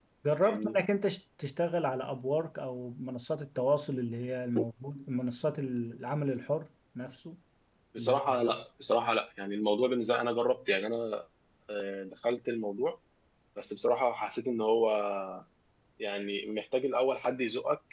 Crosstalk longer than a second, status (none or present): none